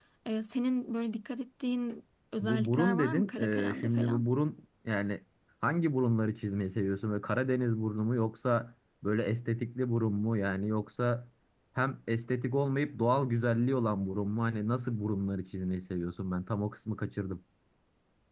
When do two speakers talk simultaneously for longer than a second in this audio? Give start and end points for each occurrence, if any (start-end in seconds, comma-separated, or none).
2.4-4.2